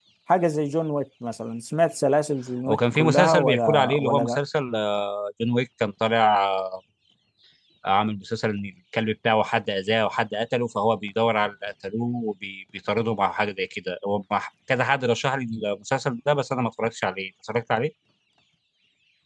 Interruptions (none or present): present